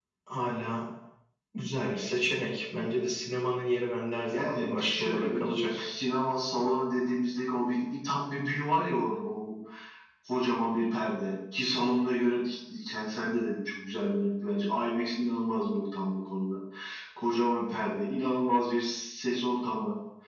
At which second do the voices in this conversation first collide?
4.3 s

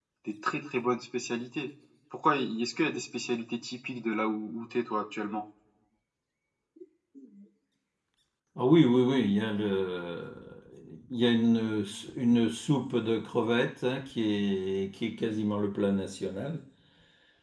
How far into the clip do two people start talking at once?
none

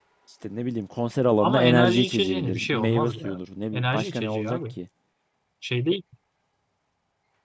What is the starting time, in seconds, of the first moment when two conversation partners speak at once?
1.4 s

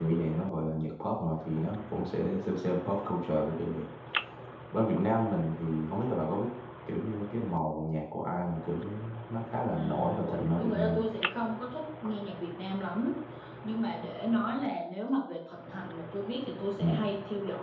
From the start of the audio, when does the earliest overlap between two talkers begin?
9.7 s

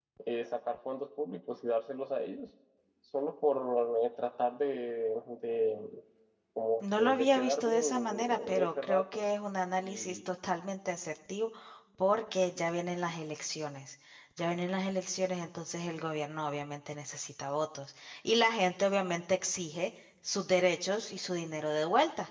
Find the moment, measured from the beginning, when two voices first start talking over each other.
6.8 s

